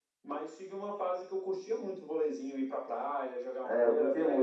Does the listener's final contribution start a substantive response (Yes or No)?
Yes